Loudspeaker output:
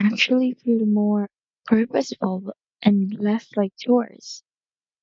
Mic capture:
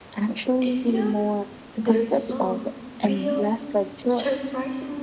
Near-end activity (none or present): present